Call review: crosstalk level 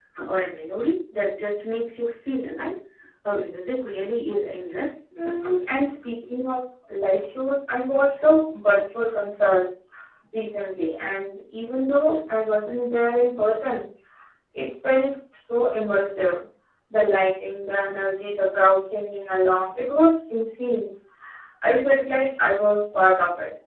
none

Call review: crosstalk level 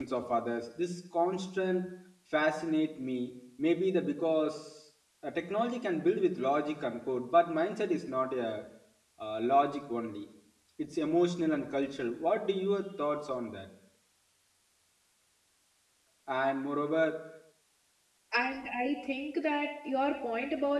none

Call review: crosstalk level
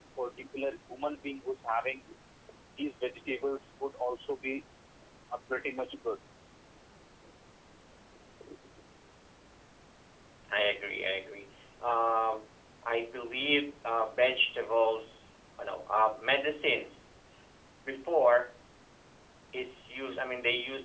none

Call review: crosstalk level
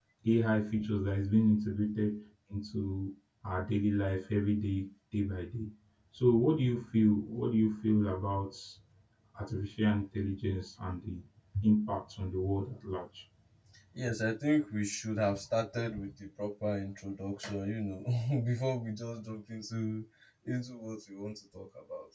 none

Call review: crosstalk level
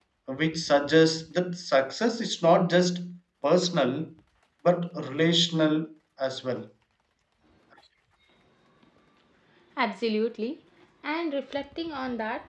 none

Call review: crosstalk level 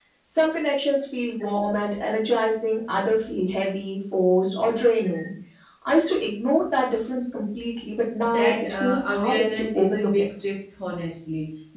present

